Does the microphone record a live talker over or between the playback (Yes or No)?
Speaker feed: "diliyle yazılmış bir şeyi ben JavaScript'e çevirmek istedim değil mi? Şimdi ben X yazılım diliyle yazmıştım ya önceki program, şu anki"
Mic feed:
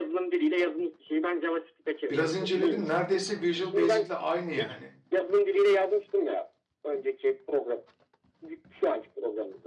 Yes